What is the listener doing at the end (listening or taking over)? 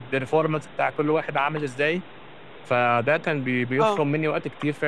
listening